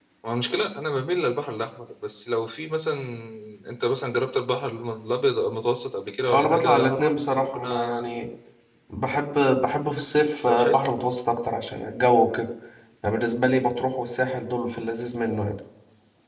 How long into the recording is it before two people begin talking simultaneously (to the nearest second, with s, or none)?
6 s